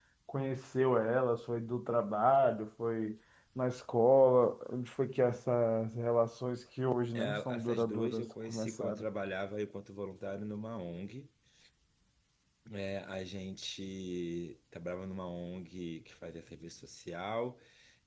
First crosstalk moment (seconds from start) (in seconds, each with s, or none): 7.2 s